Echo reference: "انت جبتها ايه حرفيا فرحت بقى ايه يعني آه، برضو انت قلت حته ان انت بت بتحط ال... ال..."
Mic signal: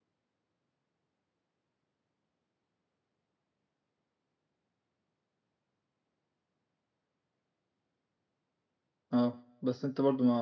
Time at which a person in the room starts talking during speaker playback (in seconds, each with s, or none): 9.1 s